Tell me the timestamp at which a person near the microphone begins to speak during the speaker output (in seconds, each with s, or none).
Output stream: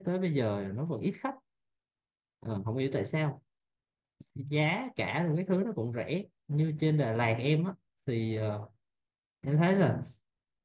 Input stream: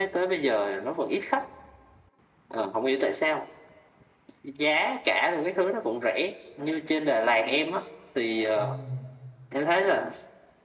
8.5 s